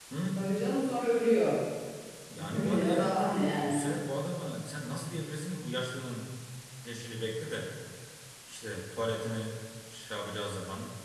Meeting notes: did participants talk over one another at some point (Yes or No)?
Yes